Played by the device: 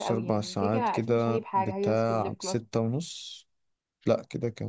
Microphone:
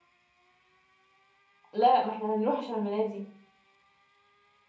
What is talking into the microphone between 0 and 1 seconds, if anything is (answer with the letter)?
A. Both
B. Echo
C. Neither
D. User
C